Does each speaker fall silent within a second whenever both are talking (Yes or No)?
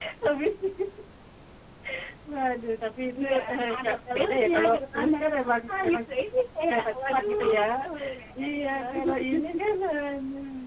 No